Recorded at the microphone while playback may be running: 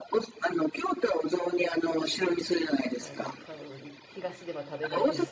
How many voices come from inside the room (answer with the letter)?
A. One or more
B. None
A